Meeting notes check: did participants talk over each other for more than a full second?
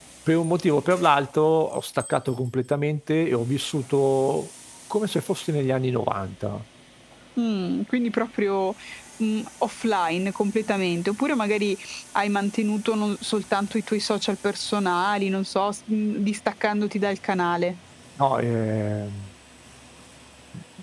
No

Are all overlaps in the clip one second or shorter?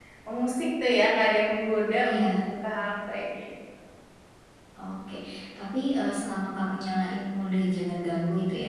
Yes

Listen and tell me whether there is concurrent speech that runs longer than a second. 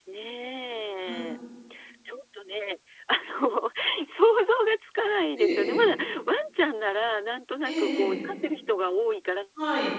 No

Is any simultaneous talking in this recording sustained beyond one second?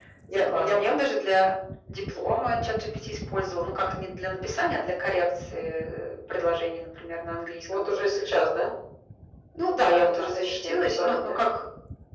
Yes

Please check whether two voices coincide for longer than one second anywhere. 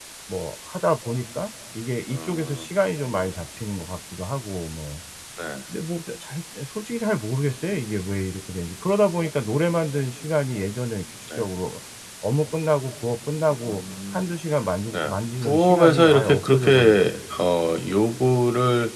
Yes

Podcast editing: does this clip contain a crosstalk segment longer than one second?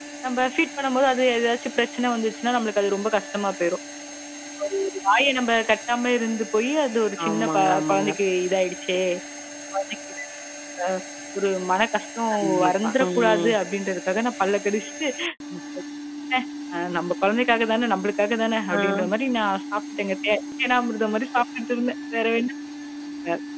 Yes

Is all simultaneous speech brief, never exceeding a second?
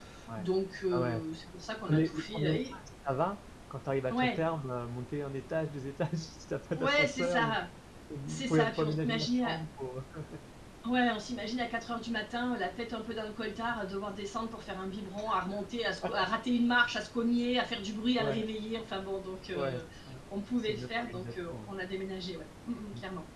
No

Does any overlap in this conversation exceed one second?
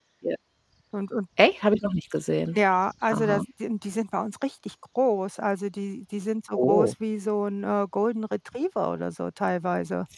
No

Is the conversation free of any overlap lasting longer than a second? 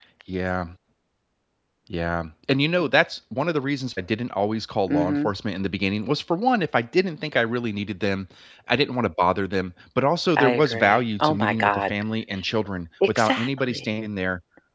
No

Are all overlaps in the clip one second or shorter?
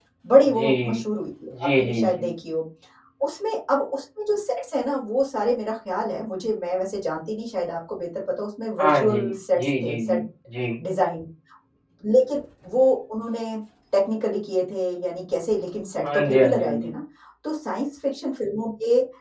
No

